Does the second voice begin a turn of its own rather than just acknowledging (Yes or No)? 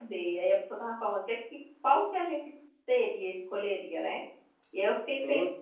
No